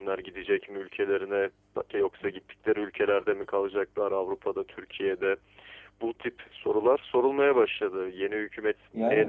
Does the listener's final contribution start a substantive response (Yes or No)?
Yes